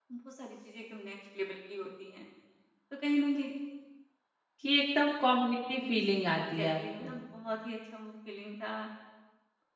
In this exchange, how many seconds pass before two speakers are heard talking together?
5.8 s

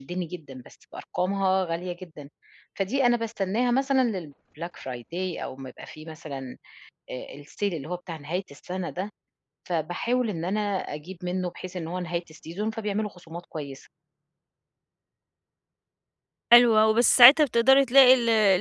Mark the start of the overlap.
none

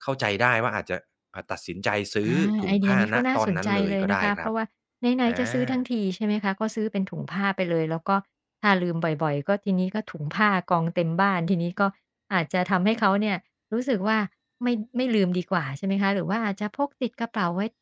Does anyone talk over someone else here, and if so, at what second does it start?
2.2 s

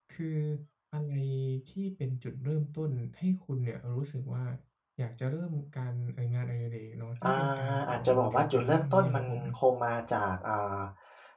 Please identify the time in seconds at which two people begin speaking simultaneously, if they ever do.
7.2 s

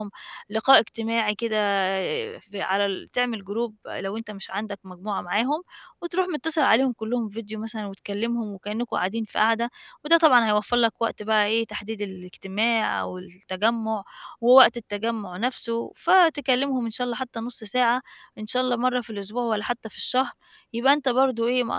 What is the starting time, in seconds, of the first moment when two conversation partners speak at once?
none

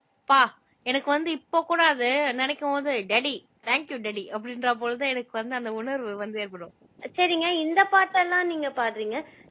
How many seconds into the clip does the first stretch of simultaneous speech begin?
none

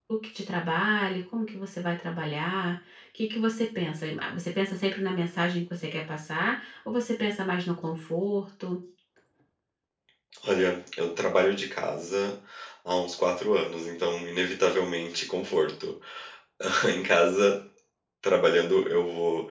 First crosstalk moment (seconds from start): none

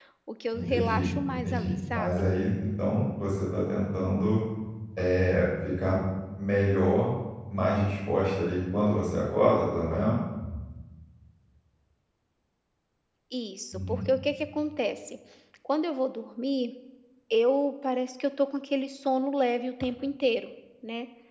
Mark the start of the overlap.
0.5 s

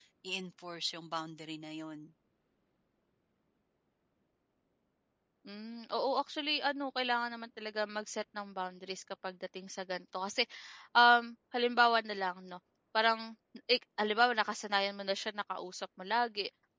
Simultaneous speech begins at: none

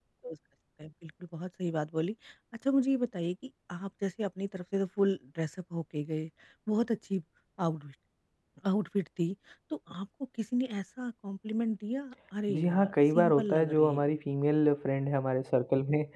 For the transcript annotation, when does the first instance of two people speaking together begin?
12.5 s

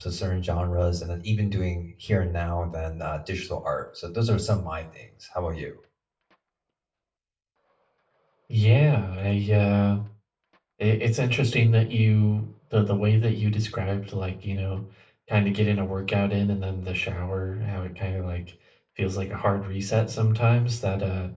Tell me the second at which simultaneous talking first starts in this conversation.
none

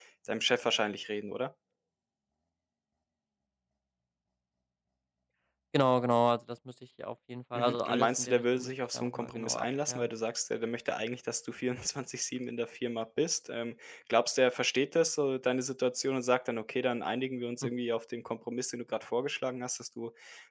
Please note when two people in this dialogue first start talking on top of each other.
7.5 s

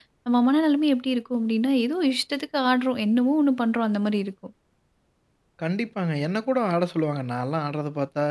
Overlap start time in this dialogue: none

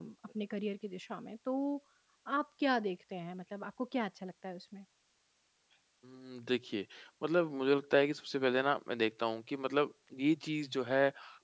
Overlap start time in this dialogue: none

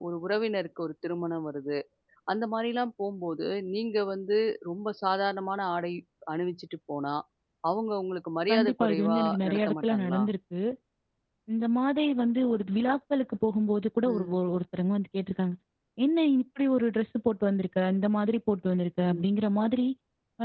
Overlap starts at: 8.5 s

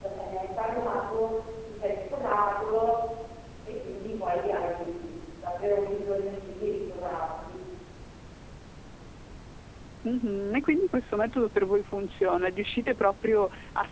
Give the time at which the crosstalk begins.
none

